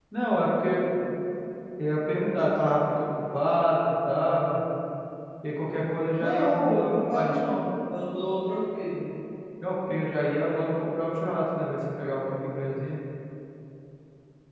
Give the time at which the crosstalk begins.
6.2 s

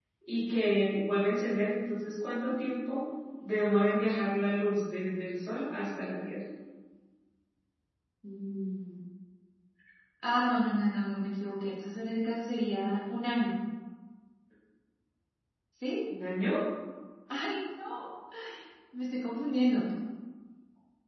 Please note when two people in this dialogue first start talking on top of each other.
none

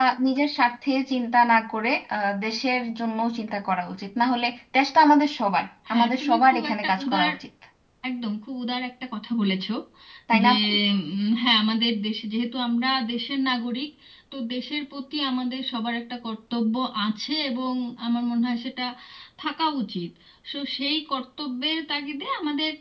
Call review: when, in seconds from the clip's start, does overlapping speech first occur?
5.9 s

